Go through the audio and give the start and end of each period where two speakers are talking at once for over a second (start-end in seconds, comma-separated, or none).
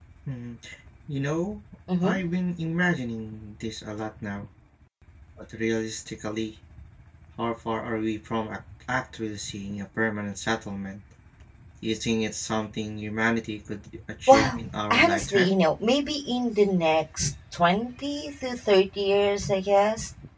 14.3-15.5